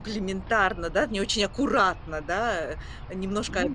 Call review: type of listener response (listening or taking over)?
listening